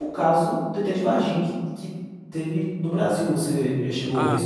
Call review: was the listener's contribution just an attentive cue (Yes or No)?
No